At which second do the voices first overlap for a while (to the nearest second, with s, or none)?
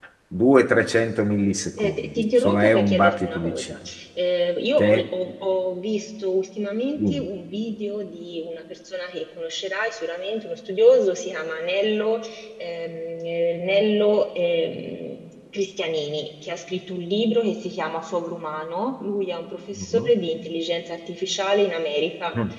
2 s